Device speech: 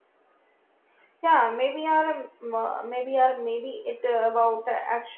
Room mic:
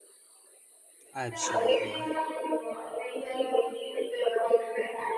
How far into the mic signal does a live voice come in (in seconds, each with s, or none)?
1.1 s